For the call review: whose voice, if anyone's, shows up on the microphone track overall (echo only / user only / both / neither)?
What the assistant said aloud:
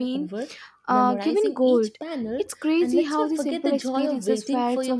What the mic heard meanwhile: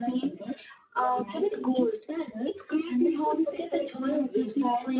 echo only